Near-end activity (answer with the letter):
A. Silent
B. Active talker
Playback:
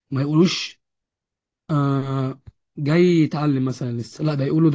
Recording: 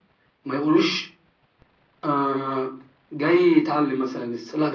A